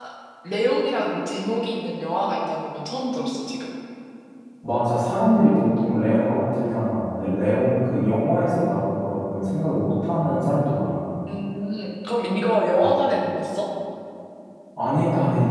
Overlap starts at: none

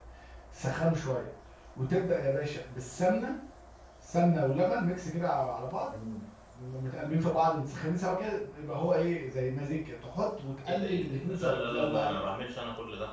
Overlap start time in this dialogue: 10.7 s

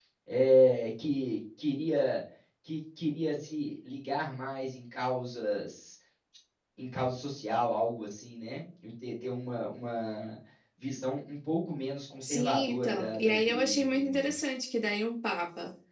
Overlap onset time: 12.2 s

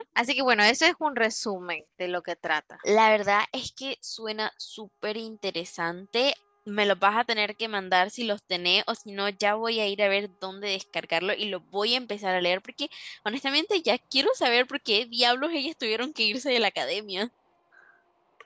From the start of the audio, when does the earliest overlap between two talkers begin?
none

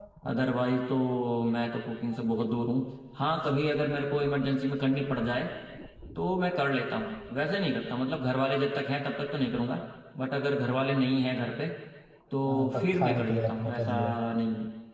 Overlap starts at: 12.4 s

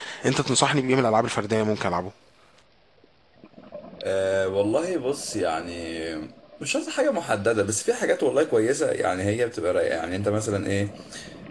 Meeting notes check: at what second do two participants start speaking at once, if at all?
none

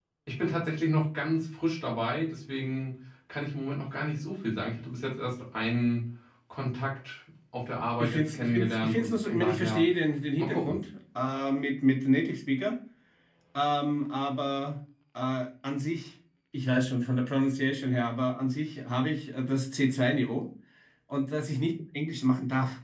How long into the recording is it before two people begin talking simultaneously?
8.0 s

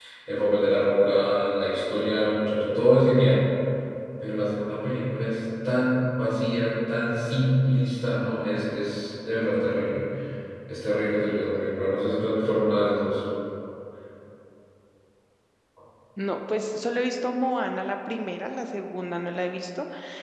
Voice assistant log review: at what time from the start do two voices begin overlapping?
none

